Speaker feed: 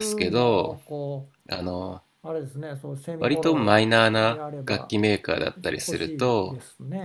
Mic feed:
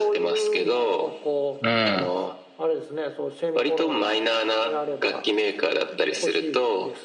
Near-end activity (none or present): present